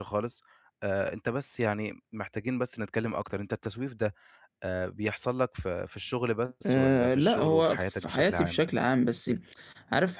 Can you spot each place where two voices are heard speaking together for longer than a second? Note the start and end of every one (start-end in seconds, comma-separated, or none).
6.7-8.6